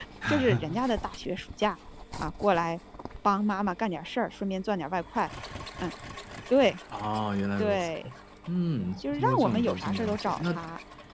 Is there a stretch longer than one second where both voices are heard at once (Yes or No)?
Yes